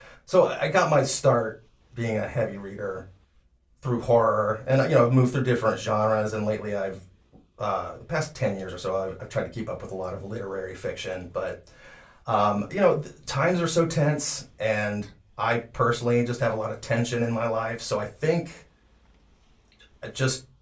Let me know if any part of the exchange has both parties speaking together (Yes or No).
No